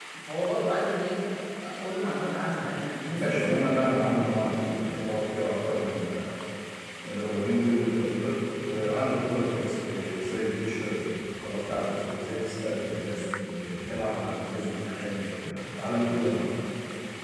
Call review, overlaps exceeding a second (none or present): present